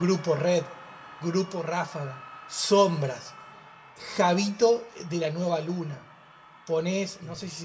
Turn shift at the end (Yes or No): No